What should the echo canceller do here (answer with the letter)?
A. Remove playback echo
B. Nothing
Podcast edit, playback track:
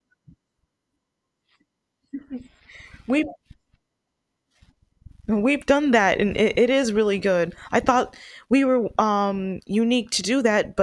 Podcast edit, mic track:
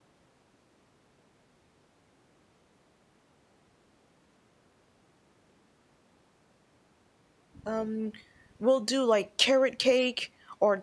B